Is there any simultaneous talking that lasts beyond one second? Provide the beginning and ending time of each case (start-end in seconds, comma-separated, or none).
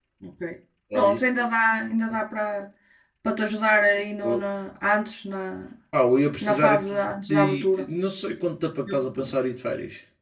6.4-7.9